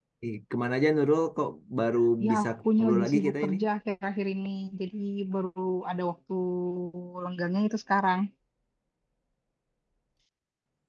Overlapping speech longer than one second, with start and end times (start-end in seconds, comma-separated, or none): 2.2-3.5